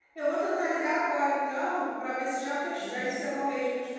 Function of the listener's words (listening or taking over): listening